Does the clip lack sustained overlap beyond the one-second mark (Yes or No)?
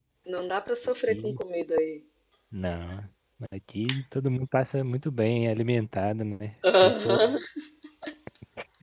Yes